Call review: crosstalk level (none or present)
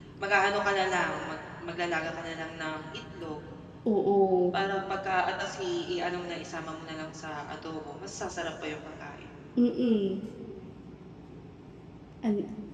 none